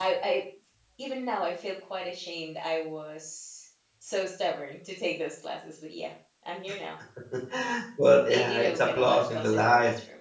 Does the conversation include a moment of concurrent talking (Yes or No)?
Yes